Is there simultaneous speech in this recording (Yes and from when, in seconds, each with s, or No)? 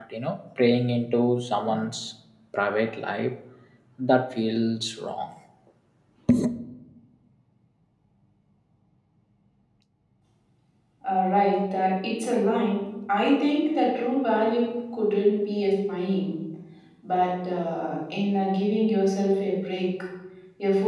No